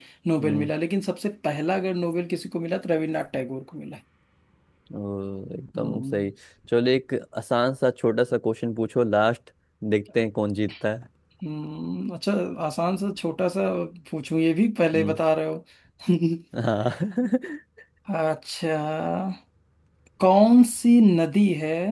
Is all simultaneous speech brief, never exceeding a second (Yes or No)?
Yes